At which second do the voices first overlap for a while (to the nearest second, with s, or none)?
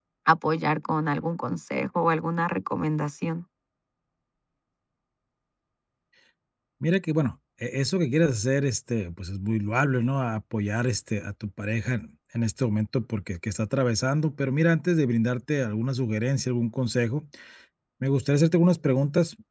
none